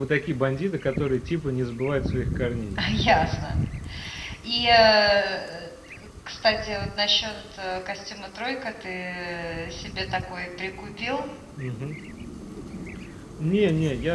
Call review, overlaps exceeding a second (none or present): none